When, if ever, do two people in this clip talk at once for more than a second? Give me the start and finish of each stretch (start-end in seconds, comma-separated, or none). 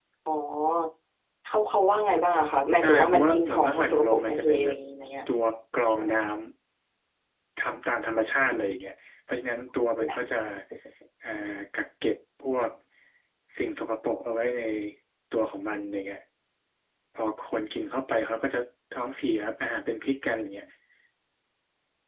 2.8-4.8